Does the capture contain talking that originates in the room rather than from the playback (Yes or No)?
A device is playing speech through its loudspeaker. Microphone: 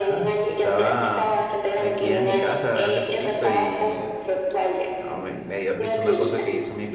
Yes